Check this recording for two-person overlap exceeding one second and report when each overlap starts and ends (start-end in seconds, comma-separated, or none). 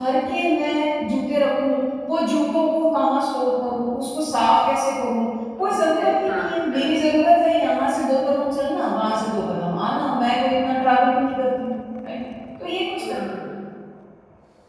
5.6-6.8